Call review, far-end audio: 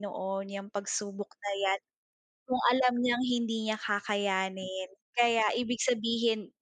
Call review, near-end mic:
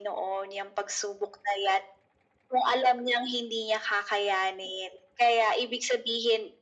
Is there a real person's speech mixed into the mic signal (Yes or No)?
No